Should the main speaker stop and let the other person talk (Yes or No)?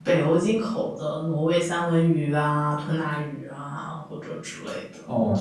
Yes